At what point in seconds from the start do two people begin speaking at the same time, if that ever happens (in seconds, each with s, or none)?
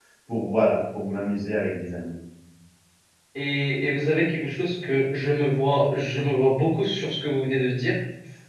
none